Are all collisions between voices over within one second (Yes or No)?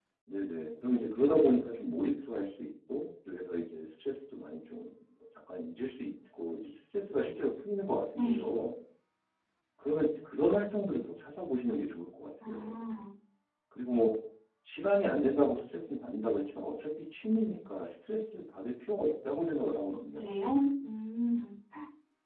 Yes